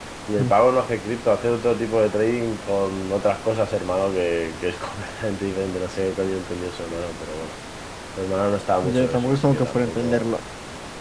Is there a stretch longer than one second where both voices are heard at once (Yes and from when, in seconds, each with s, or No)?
Yes, from 8.8 s